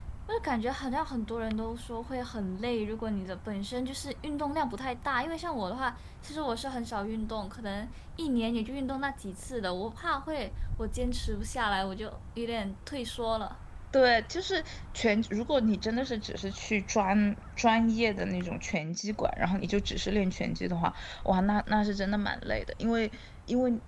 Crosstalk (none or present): none